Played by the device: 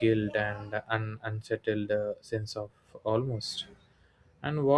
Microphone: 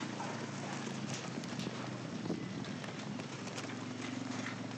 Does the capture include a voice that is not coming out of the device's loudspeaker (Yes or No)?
No